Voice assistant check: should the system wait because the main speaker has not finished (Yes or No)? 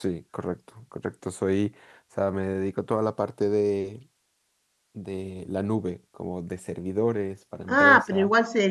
No